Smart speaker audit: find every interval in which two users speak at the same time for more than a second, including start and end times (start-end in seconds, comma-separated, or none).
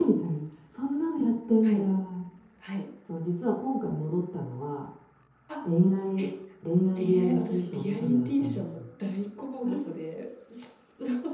7.0-8.8